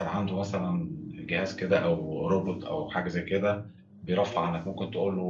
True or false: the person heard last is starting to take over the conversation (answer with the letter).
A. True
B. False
B